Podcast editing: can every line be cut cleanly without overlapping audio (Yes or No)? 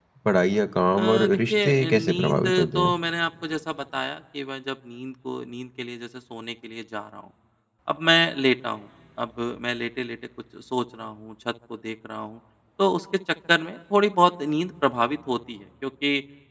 No